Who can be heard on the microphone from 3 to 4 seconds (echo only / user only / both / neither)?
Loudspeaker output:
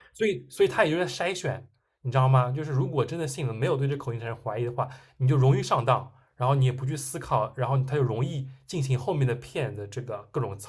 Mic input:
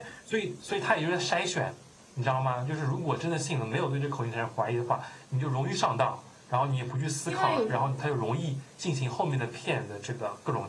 echo only